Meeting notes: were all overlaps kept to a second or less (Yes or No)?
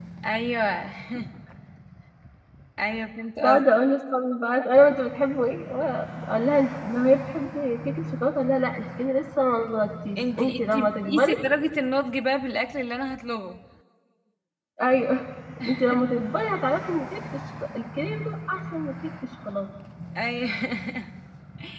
No